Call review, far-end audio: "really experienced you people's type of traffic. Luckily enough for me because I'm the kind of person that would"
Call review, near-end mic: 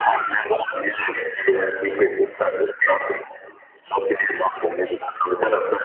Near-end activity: none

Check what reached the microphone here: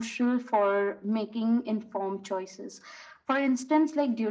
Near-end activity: none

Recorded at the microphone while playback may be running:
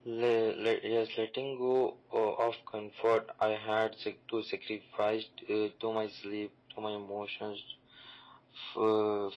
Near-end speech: none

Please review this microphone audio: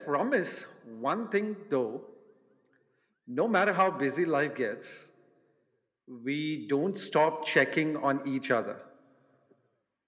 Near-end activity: none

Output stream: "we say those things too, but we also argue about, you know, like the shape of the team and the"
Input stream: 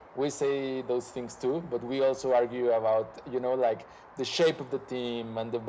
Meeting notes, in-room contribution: none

